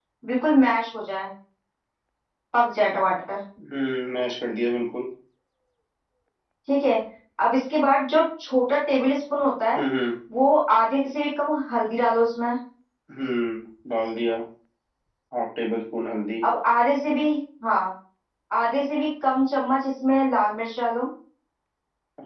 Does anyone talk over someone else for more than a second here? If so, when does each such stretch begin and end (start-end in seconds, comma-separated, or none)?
none